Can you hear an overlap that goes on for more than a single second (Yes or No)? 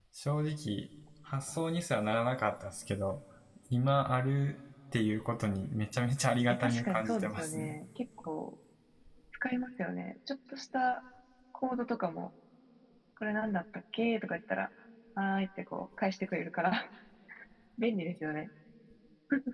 Yes